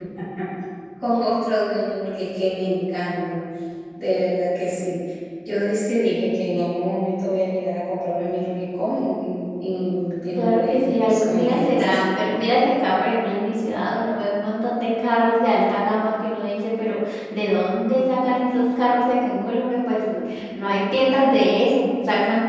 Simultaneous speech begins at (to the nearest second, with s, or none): 10 s